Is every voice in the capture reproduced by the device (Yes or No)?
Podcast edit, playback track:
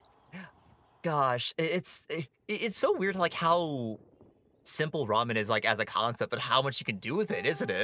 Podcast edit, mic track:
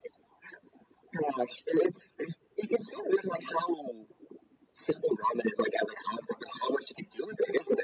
Yes